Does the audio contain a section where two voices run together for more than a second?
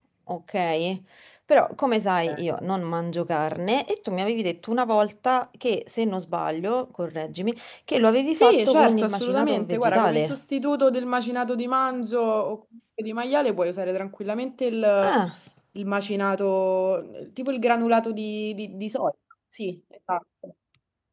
Yes, from 8.3 s

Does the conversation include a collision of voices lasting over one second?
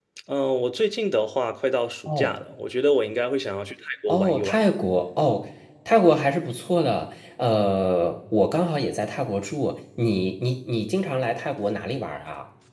No

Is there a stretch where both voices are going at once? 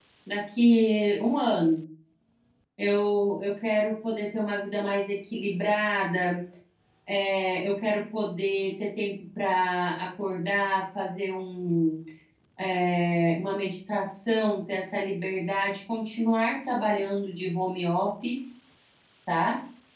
No

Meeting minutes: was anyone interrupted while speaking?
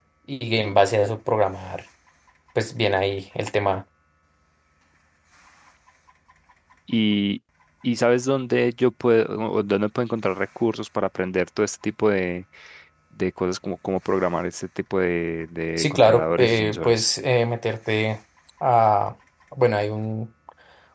Yes, from 15.8 s

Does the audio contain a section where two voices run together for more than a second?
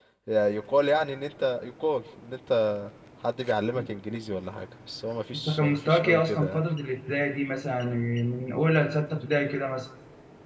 Yes, from 5.3 s

